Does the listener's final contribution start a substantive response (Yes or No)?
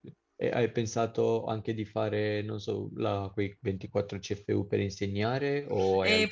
Yes